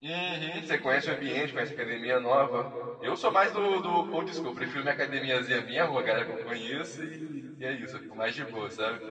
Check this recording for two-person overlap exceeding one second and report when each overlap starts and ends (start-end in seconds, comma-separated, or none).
none